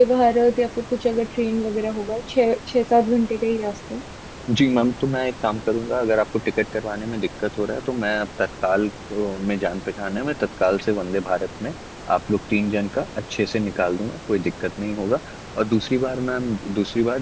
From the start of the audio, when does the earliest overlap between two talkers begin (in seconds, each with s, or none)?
none